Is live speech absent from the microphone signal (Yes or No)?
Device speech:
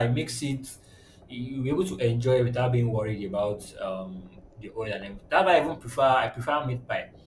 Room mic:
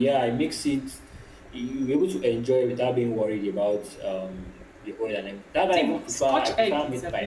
No